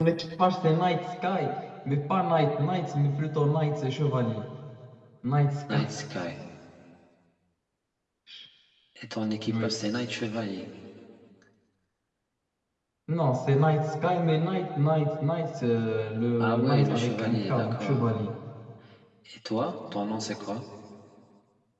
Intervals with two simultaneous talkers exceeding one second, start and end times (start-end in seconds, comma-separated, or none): 16.4-18.2